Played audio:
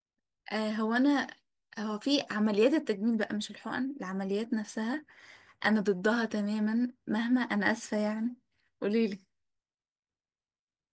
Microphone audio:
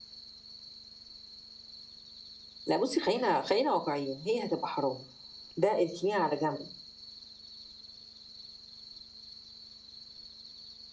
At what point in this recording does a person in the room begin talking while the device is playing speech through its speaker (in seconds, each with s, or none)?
2.6 s